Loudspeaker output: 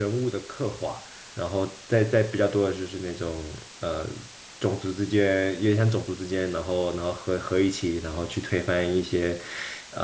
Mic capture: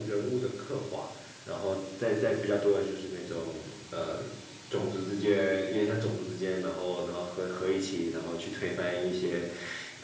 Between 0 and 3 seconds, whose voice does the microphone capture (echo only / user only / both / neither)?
echo only